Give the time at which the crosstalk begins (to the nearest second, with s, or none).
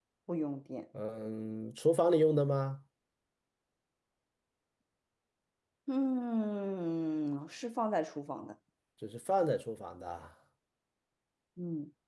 none